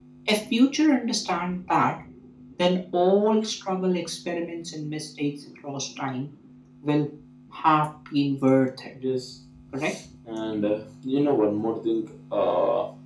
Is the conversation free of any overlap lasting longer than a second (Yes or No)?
Yes